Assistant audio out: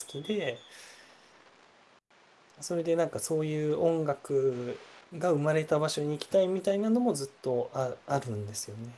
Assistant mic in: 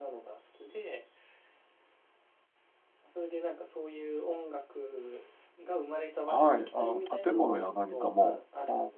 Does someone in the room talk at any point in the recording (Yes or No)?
Yes